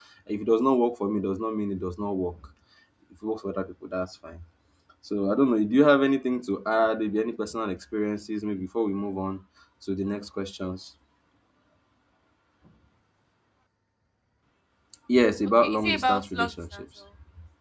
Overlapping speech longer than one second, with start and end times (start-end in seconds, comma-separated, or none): 15.6-16.8